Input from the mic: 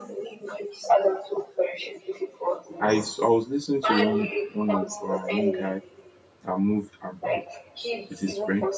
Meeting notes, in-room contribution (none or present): present